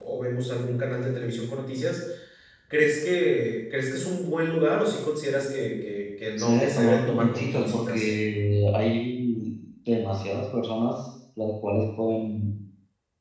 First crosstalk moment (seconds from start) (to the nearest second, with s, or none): 6 s